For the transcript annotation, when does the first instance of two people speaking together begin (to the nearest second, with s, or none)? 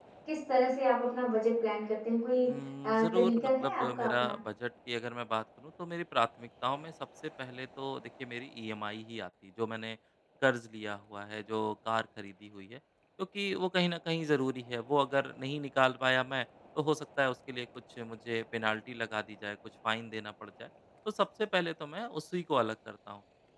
3 s